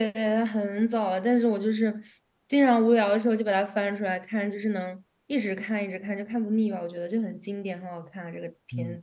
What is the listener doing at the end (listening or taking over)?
taking over